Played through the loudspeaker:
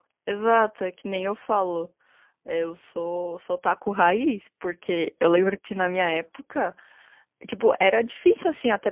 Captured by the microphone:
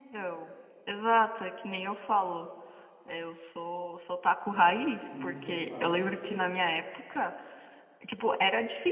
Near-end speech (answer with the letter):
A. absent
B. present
B